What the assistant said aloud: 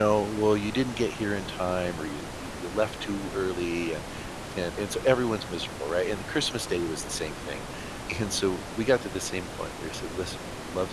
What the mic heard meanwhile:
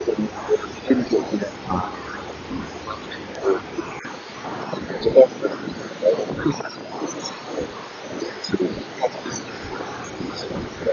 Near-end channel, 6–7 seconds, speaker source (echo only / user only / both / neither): echo only